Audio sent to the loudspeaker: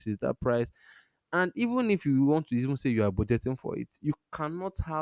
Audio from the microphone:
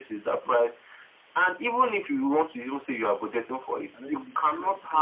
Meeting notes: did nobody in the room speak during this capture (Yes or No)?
No